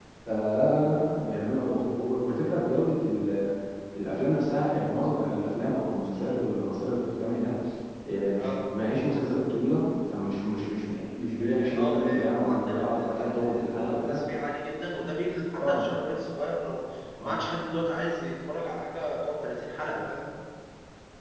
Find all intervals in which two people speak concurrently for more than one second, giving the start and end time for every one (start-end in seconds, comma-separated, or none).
11.4-14.2